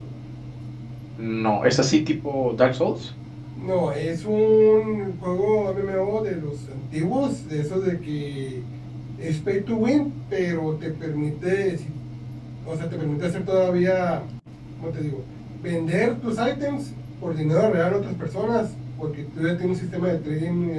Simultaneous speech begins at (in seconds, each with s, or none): none